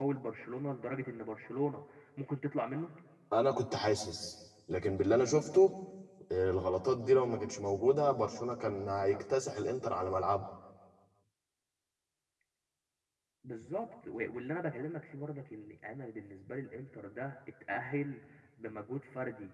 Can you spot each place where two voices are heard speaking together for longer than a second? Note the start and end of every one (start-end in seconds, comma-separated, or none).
none